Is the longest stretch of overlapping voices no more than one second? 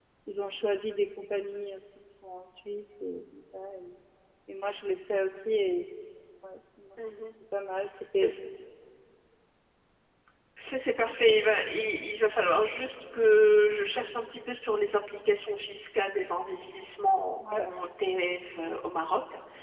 Yes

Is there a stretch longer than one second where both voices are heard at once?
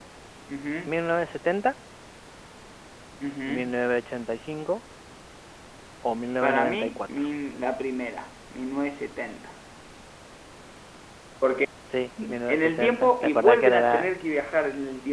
Yes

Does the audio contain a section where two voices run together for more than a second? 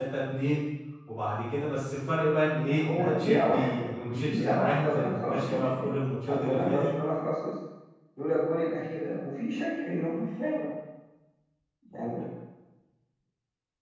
Yes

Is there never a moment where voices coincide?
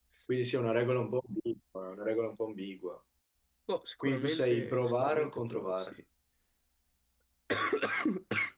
No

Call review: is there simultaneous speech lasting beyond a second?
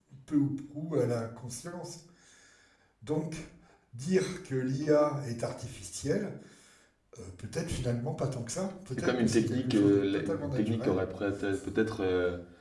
Yes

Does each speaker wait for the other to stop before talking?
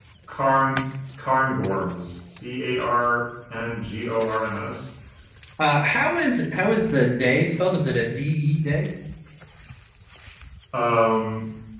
Yes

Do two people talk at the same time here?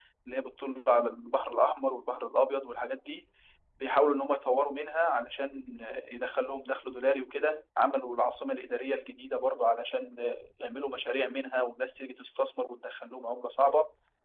No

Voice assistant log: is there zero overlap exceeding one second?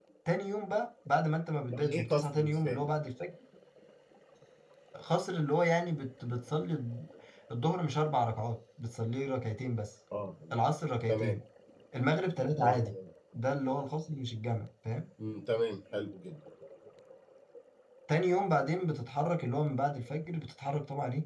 No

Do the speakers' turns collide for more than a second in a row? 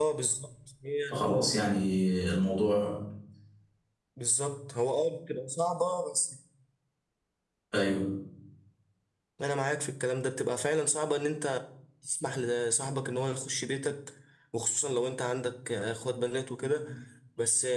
No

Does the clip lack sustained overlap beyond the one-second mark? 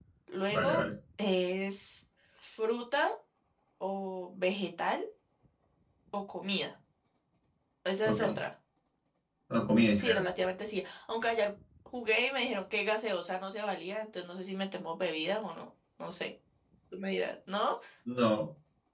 Yes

